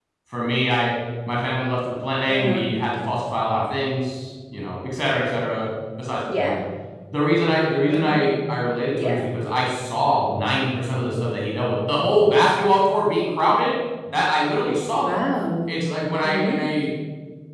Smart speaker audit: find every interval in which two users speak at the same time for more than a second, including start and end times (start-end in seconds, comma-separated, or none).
none